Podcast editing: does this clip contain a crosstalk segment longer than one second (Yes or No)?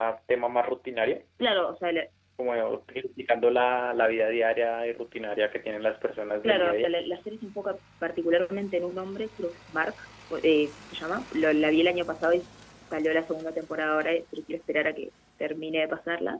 No